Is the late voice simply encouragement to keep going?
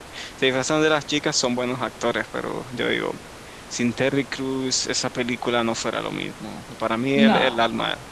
Yes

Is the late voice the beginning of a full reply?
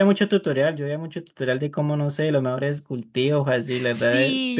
Yes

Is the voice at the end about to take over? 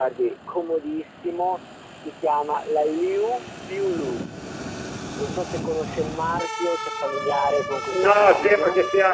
Yes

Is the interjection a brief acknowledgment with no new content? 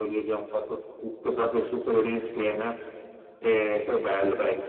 Yes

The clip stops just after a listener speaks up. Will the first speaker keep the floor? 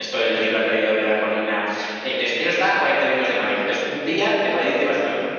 Yes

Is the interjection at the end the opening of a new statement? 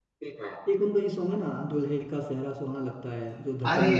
Yes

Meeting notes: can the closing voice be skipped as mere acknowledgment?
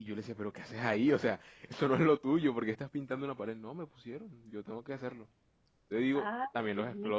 No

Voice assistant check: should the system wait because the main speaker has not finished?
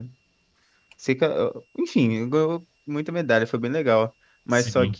Yes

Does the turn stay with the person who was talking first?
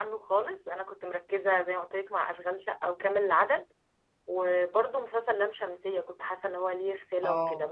Yes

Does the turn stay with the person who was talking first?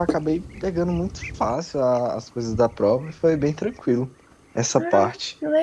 No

